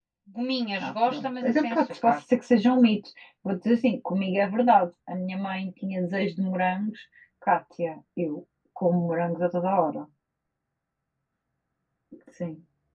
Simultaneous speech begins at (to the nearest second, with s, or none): 1 s